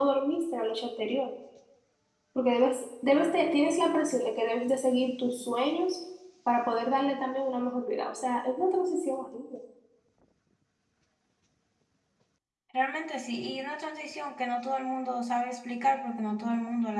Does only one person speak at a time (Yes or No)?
Yes